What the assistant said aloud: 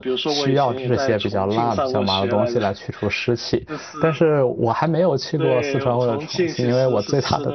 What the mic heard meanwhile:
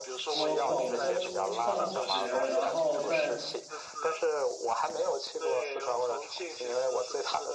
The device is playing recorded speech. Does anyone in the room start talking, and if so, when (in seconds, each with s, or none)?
0.3 s